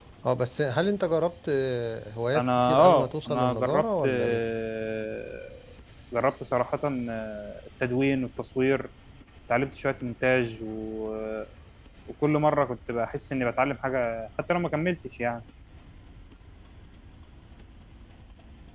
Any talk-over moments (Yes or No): Yes